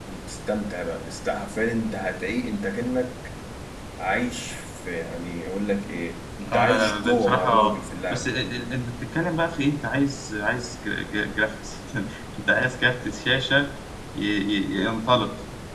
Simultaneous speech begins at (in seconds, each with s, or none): 6.5 s